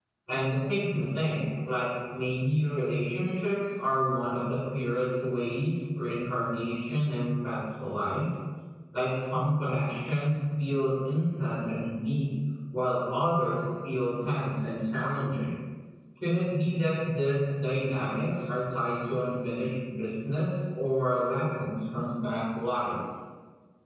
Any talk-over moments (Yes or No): No